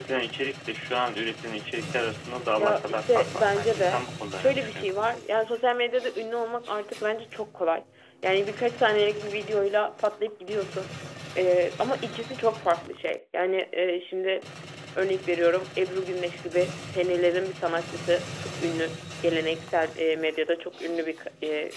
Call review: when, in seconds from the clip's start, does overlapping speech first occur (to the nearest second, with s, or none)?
3 s